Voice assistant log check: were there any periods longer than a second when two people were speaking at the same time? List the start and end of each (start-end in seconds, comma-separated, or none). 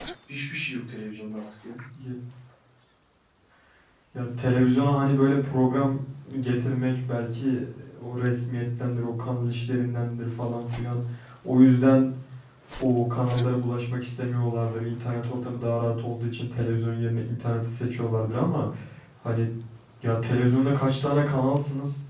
none